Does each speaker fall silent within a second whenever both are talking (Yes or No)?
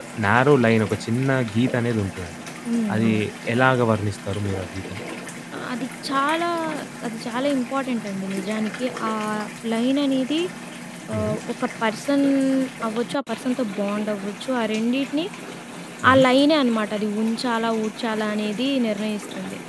Yes